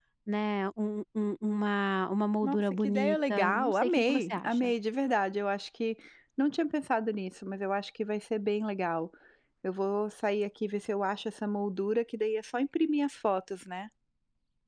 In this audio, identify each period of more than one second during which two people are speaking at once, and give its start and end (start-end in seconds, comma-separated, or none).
2.4-4.7